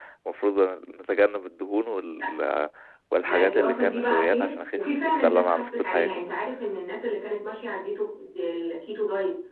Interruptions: present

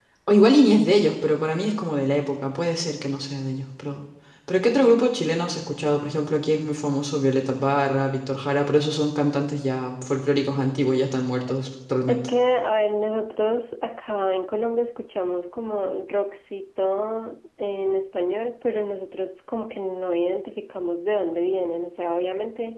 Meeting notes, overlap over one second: none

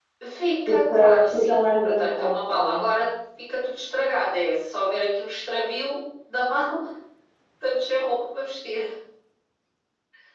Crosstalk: present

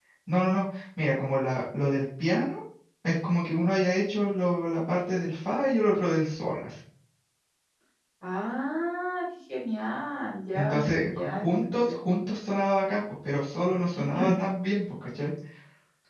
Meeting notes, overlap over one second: present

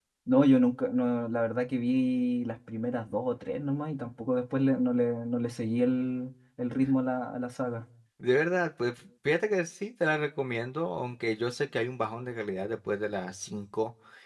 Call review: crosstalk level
none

